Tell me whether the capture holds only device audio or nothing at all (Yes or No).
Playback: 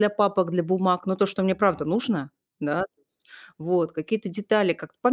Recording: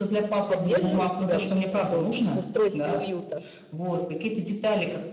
No